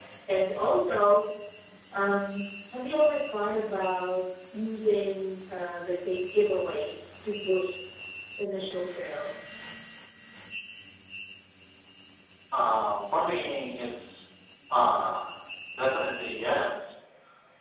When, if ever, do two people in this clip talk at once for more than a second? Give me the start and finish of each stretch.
none

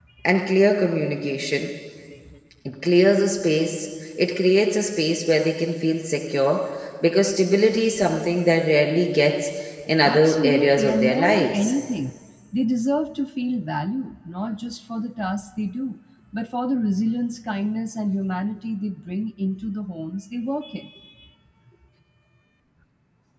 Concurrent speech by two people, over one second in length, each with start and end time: 10.0-11.7

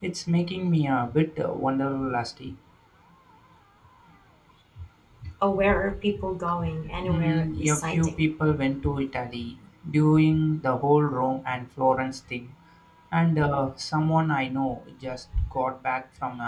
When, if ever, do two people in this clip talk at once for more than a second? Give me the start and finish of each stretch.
7.0-8.2

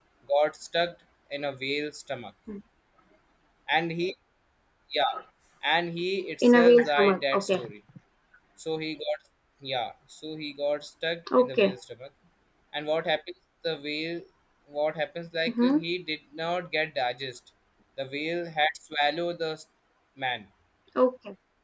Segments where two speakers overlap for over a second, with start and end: 6.4-7.6

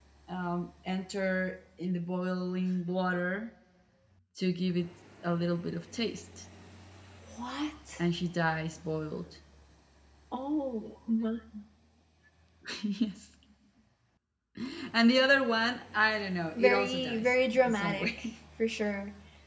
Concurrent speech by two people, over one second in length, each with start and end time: 16.5-18.3

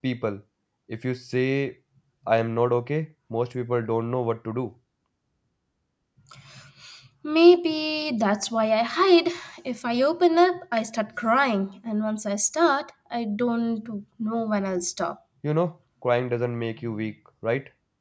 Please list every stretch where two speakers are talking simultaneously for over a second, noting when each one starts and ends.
none

